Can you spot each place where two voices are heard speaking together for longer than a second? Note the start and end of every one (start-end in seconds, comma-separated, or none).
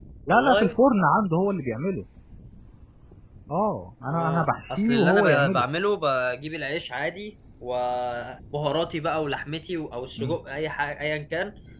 4.1-5.6